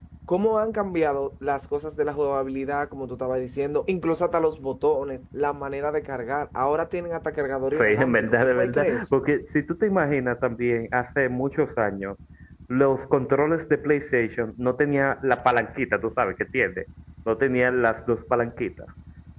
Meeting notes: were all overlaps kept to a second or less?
No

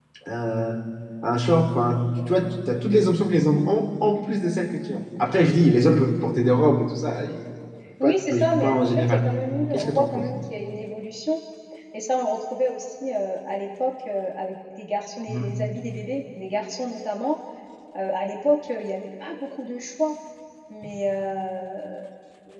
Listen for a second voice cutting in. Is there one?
Yes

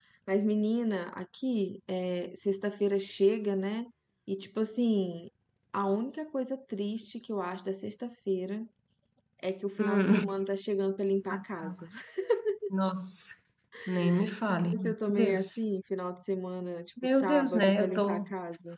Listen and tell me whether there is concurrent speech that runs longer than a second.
Yes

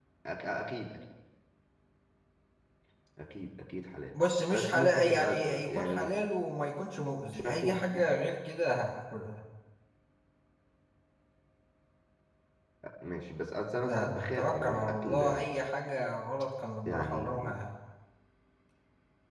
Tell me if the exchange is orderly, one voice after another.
No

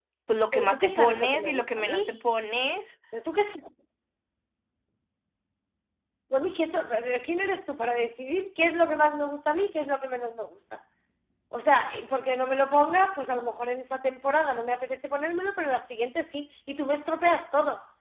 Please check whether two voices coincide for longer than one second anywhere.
Yes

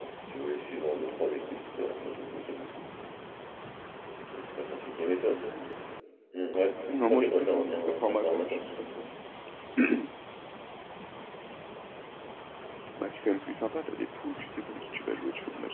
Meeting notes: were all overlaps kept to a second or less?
No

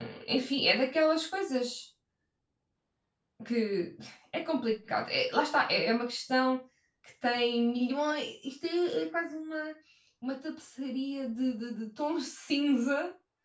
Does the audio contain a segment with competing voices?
No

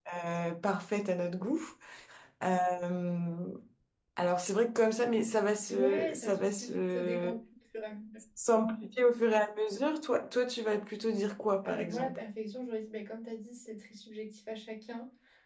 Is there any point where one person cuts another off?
Yes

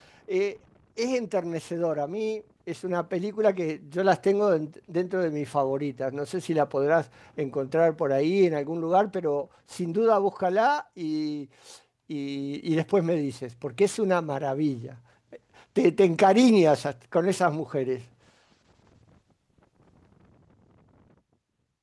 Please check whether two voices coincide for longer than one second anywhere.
No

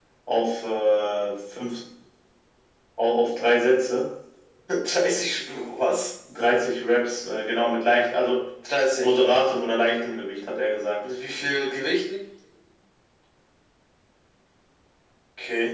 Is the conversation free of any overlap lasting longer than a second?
Yes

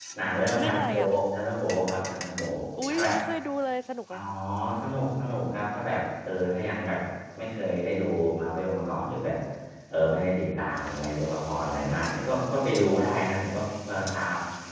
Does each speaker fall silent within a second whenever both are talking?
Yes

